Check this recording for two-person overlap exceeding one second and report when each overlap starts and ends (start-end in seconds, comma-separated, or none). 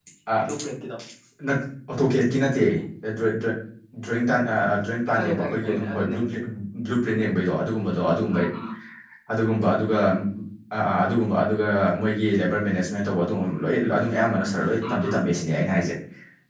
5.1-6.3